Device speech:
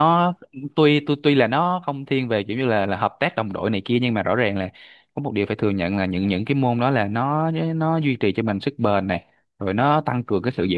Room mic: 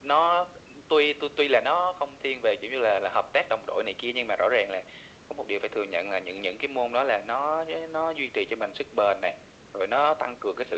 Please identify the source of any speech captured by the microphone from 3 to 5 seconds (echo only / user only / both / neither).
echo only